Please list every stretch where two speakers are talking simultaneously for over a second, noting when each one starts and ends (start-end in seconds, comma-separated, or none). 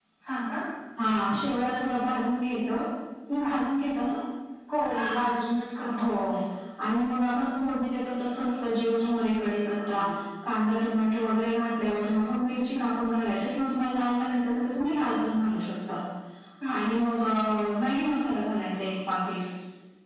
none